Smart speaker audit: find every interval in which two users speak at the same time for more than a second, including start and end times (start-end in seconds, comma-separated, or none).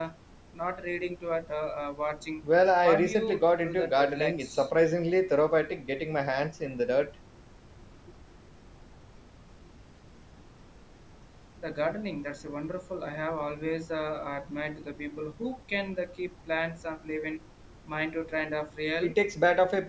2.8-4.7